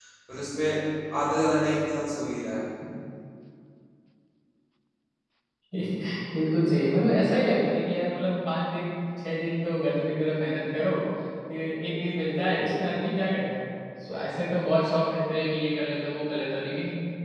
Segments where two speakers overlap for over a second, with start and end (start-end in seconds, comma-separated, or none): none